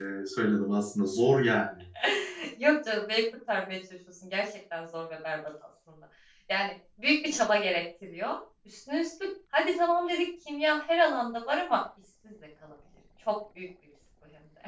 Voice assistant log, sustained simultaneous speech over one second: none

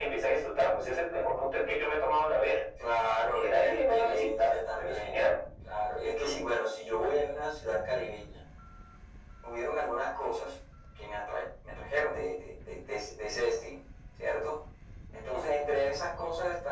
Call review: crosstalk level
present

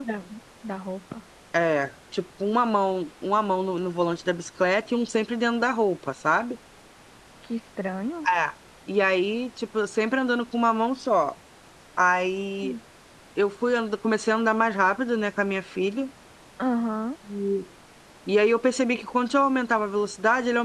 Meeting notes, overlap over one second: none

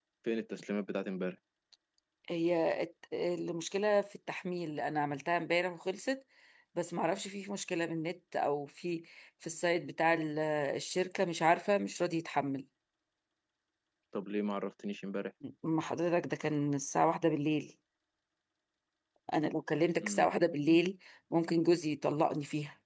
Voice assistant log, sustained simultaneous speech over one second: none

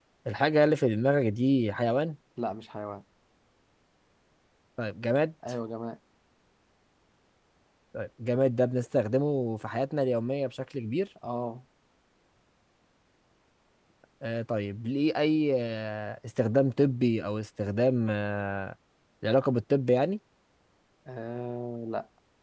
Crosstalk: none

